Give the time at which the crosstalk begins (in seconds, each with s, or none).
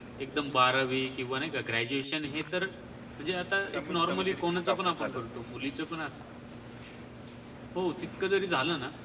3.7 s